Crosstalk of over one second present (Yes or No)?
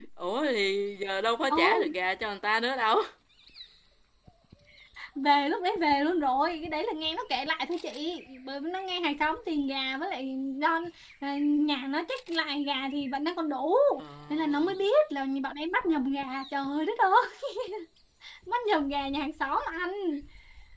No